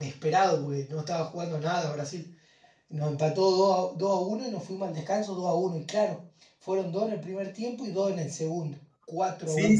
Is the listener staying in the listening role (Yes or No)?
No